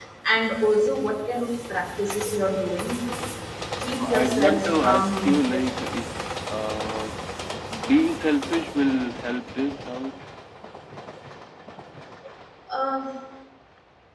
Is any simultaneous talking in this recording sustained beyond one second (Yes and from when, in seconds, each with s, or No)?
Yes, from 4.0 s